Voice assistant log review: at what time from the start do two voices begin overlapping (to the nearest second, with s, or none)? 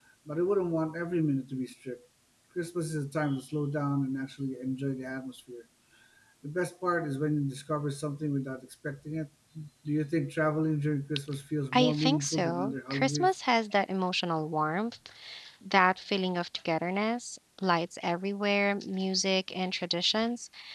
12 s